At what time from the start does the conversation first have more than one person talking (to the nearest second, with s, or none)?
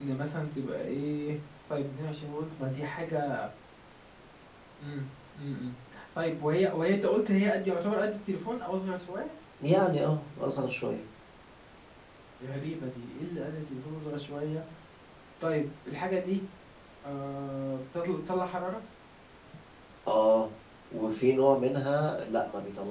none